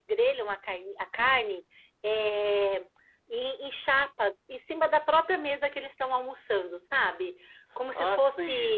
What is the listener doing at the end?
taking over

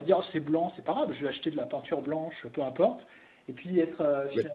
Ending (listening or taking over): listening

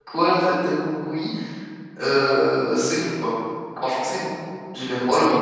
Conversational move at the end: listening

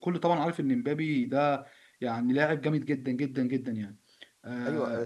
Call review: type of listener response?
taking over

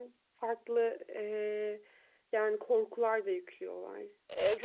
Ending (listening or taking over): taking over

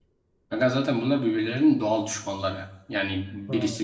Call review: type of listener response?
listening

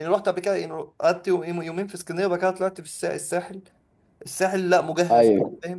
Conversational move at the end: listening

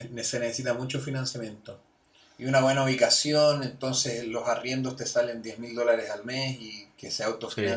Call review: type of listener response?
listening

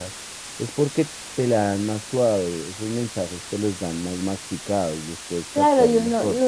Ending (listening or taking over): taking over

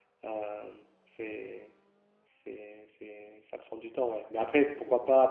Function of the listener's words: listening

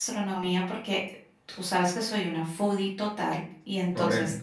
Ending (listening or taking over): listening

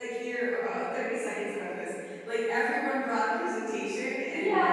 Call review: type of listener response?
taking over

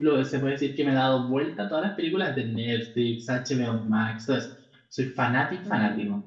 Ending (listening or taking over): taking over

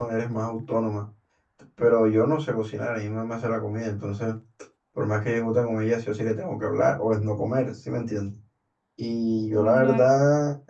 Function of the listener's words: listening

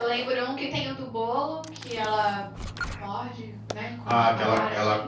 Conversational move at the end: taking over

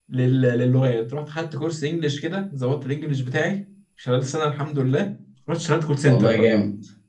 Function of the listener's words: taking over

